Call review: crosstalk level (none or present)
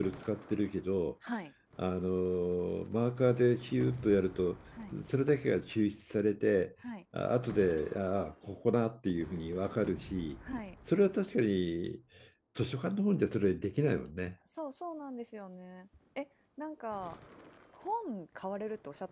none